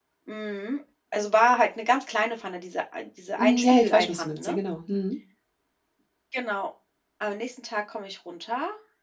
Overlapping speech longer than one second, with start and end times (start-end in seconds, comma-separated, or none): 3.4-4.6